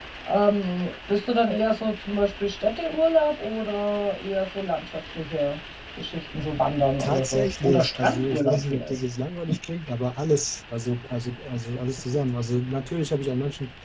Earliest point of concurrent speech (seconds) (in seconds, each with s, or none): 7.0 s